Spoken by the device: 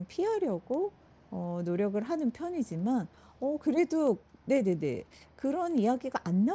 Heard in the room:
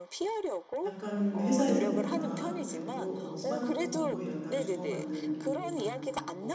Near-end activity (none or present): present